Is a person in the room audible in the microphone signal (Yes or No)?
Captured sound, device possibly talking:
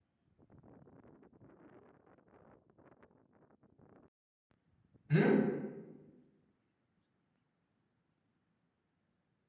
Yes